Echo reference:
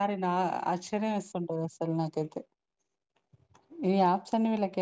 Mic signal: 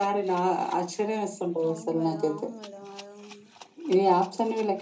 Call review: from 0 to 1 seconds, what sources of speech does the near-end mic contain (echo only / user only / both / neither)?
echo only